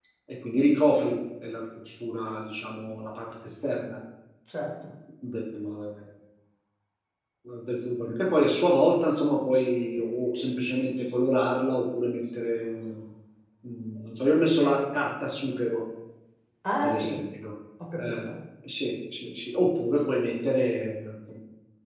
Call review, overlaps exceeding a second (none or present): none